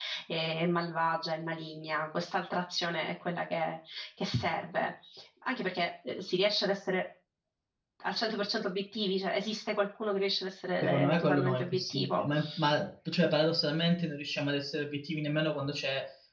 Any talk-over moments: Yes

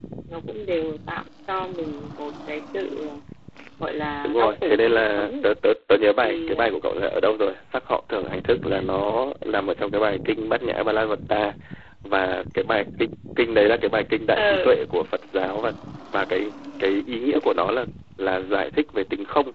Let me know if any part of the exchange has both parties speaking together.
Yes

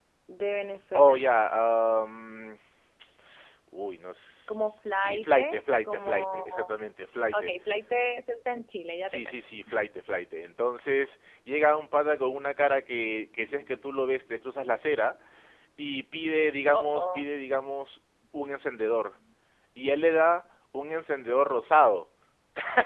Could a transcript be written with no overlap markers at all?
No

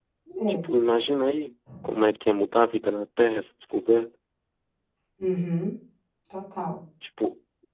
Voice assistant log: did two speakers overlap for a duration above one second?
No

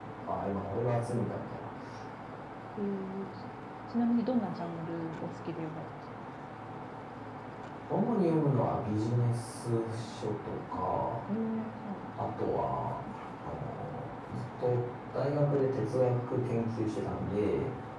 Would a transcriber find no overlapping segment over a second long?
Yes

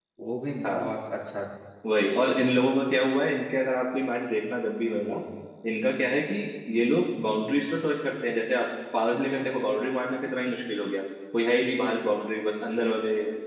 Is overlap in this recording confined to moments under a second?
Yes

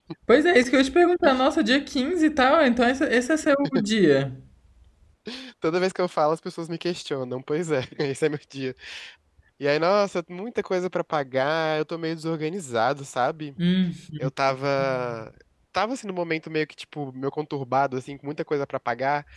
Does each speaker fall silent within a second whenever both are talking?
Yes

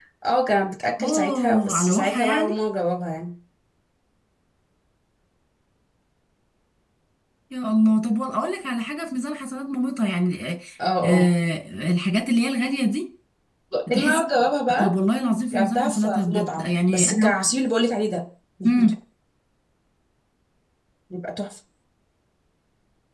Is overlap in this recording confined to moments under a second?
No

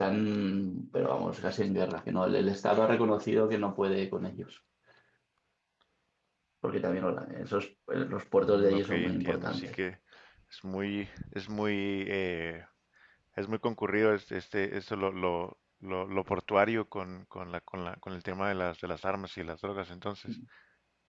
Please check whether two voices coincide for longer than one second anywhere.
Yes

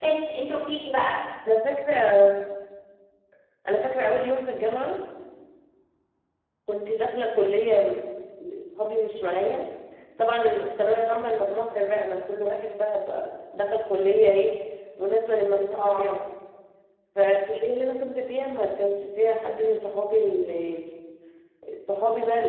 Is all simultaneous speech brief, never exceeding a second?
Yes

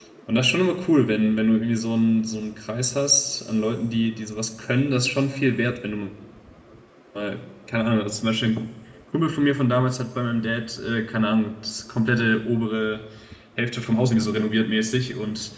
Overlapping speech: No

